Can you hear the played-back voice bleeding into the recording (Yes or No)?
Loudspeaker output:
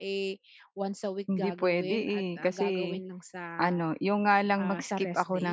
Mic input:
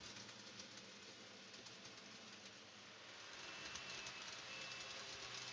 No